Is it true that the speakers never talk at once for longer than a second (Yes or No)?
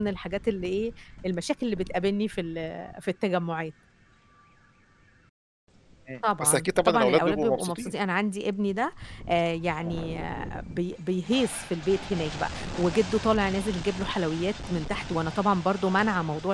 No